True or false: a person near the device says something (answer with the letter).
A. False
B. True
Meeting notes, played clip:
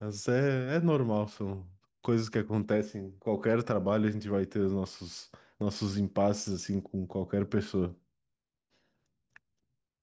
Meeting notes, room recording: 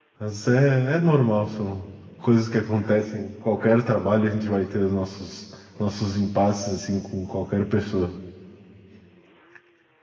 A